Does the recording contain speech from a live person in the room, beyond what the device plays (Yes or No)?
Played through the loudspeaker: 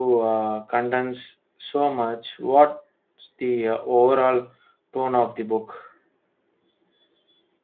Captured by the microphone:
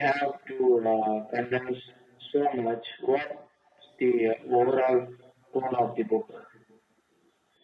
No